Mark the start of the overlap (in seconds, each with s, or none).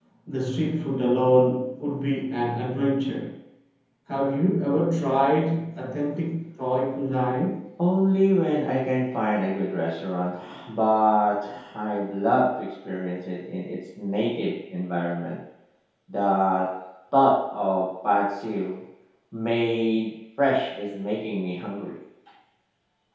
none